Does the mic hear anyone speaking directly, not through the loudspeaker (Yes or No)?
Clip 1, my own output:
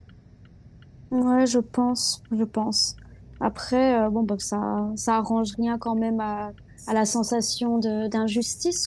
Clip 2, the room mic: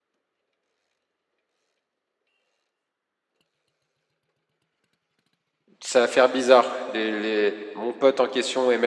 Yes